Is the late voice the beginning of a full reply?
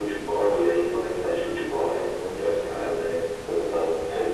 No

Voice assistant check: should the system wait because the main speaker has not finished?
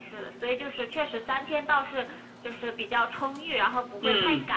No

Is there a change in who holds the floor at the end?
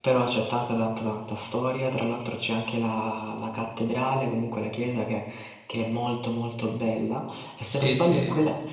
No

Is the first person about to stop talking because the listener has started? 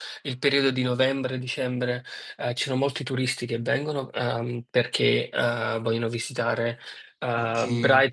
No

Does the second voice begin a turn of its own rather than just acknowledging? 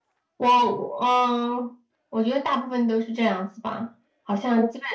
No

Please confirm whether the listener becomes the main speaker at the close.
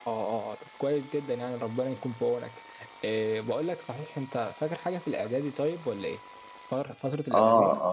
Yes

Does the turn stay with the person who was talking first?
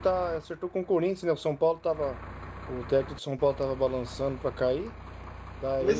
Yes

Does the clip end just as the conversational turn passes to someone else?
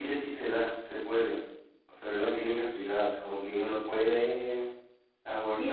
Yes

